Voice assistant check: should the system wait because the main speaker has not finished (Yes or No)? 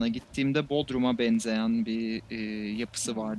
Yes